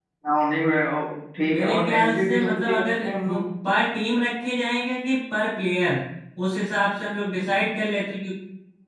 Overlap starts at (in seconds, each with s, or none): 1.5 s